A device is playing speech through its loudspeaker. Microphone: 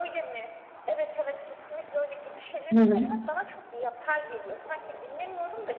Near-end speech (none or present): present